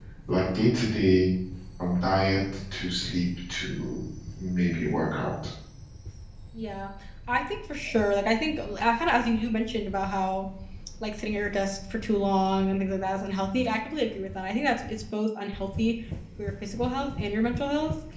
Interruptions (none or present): none